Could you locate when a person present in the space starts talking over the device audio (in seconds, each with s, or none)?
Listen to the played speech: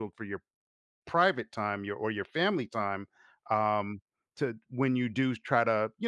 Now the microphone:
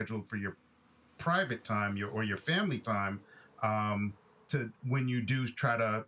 none